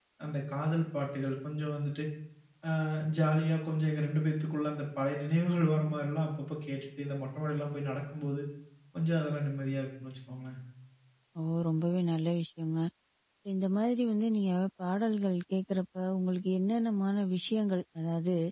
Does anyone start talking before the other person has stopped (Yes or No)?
No